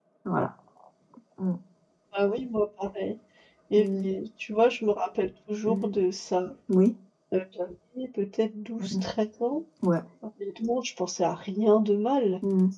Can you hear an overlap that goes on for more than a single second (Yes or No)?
No